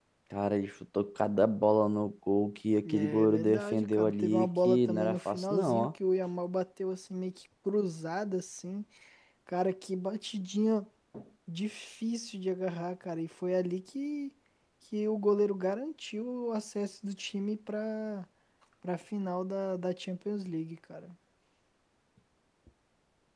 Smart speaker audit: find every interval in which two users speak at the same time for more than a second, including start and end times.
2.8-5.9

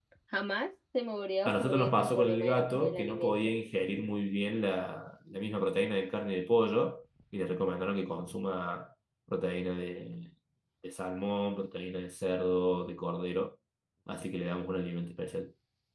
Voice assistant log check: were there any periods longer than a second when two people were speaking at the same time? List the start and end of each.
1.4-3.4

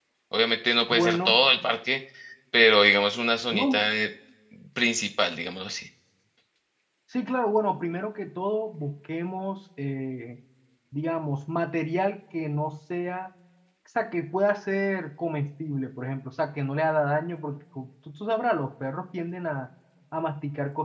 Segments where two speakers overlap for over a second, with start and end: none

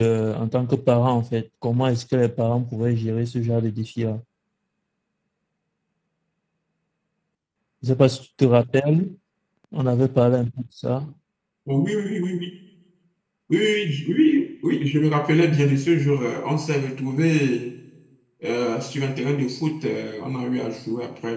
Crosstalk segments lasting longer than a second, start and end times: none

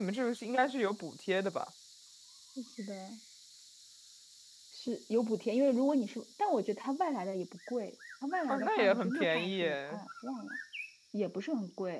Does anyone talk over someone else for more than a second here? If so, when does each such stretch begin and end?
8.5-10.0

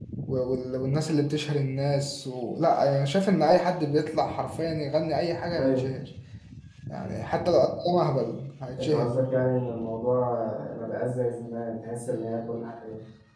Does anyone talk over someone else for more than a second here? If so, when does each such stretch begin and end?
none

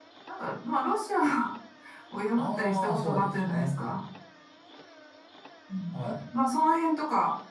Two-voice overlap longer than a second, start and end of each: 2.4-3.7

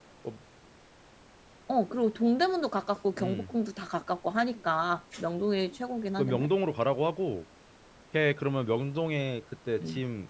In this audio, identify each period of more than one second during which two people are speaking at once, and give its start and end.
none

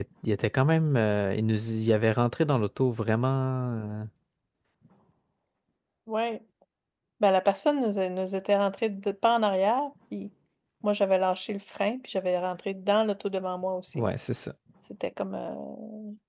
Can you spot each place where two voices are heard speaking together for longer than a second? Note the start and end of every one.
none

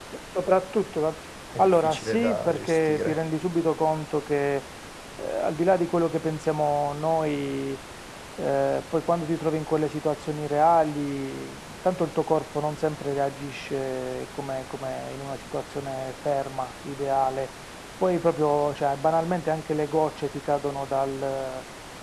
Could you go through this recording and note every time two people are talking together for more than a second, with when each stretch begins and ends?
1.6-3.2

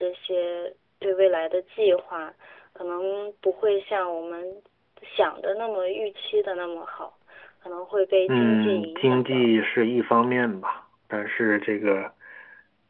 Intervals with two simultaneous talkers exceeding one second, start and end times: 8.3-9.5

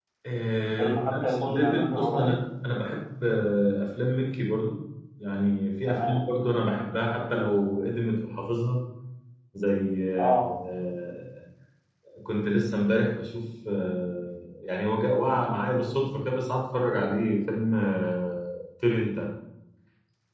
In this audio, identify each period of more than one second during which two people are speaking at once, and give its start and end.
0.8-2.3

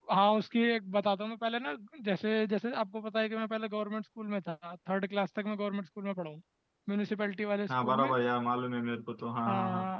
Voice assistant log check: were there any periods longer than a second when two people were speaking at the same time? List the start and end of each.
none

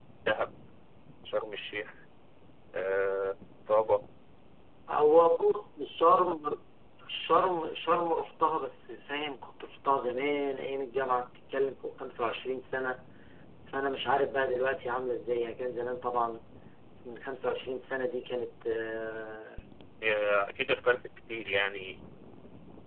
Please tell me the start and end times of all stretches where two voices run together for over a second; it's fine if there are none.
none

